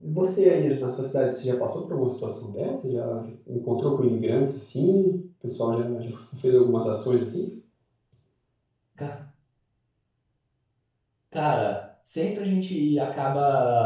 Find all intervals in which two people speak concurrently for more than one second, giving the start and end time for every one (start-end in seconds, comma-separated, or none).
none